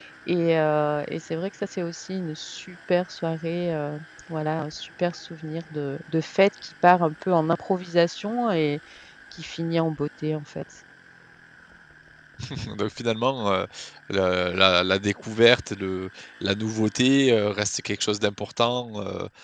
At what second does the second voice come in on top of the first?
none

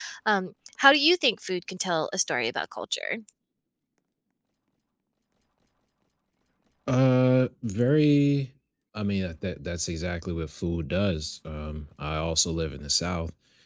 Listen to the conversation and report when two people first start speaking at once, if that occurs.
none

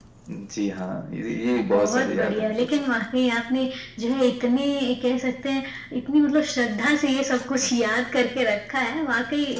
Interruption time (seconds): 1.6 s

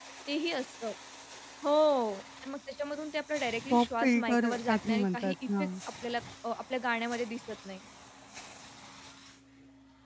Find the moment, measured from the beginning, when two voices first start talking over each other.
3.7 s

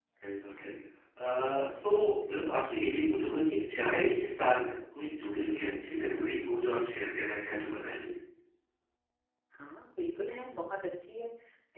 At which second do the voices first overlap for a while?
none

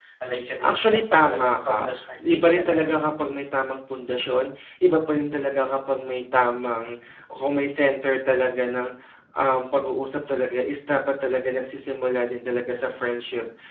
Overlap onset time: 0.6 s

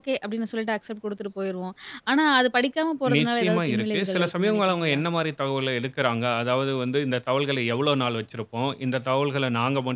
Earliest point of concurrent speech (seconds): 3.0 s

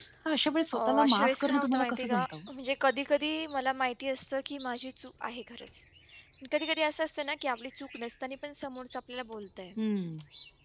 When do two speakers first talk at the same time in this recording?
0.7 s

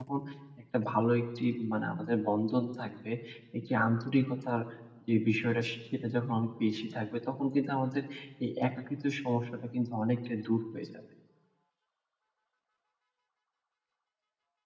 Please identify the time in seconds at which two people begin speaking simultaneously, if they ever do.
none

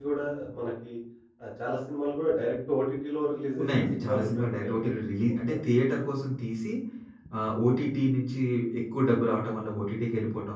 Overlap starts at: 3.6 s

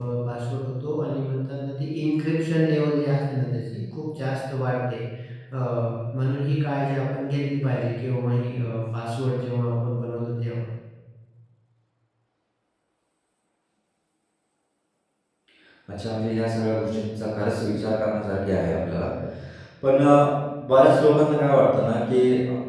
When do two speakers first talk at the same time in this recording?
none

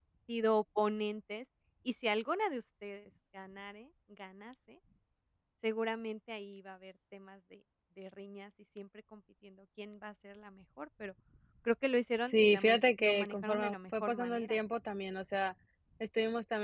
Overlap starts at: 12.2 s

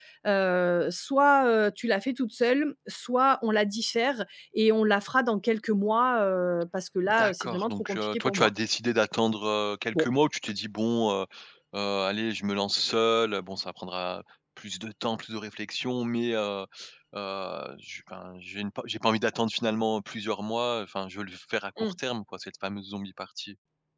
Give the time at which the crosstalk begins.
7.1 s

